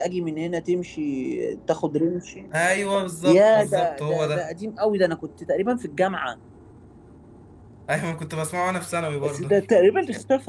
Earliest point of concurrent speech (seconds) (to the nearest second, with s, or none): 3 s